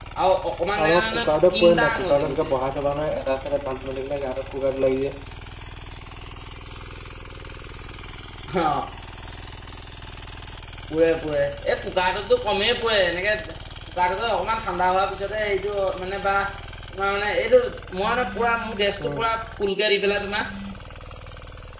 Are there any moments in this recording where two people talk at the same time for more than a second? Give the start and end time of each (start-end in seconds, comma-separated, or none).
0.8-2.5